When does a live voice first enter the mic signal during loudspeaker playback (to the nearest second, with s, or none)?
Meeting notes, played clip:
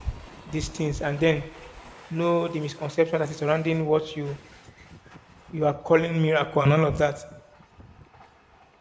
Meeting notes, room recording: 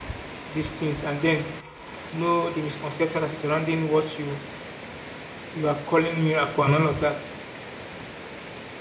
none